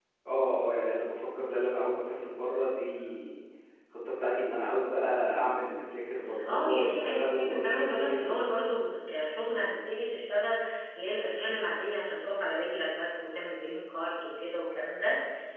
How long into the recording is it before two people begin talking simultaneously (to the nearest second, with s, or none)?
6 s